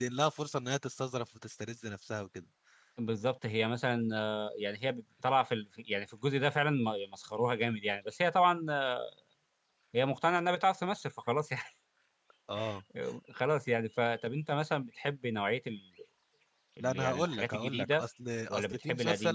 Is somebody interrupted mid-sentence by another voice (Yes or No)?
Yes